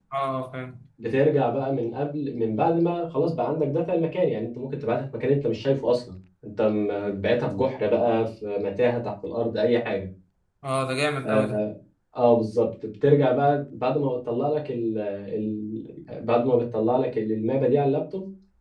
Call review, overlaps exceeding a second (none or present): none